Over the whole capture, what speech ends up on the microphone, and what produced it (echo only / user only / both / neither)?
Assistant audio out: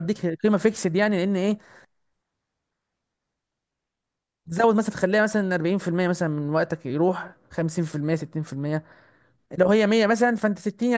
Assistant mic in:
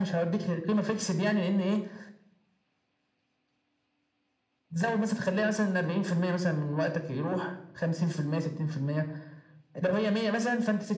echo only